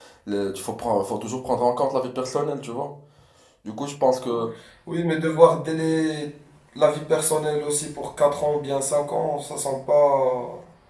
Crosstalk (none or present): none